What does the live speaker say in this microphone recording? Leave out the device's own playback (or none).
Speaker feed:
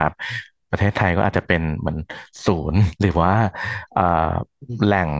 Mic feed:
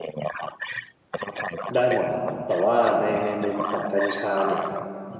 ได้หมดแหละครับแต่ว่าในในมุมของกัญชาเนี่ย